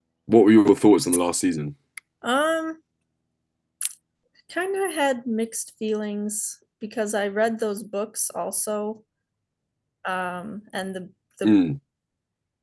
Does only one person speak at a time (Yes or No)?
Yes